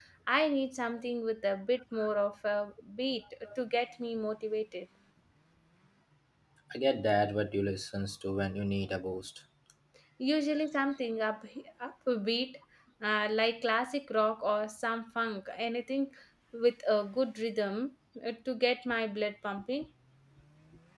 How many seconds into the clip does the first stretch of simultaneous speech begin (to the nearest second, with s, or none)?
none